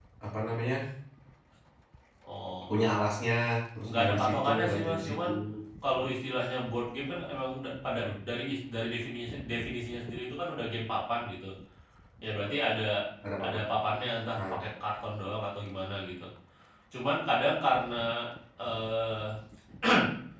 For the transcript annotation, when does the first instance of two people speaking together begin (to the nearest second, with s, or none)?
4 s